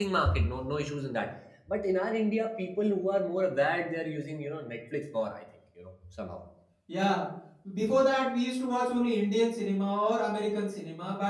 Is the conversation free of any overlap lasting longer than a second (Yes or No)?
Yes